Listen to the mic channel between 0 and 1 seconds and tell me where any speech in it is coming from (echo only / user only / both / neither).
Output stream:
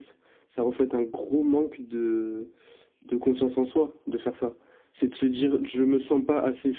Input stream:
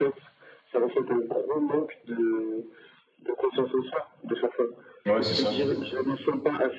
echo only